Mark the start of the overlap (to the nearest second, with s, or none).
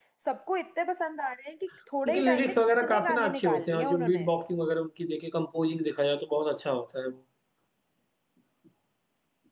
2 s